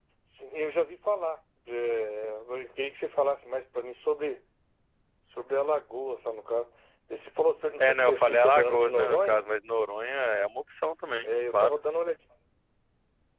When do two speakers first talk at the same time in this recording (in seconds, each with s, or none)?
7.8 s